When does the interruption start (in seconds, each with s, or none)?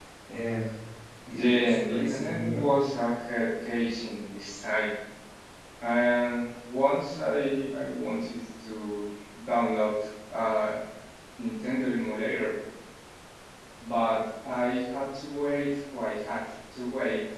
1.3 s